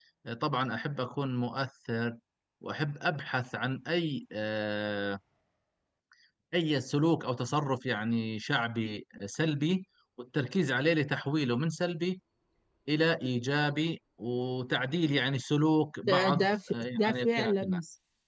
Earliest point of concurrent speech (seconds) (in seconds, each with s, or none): 16.1 s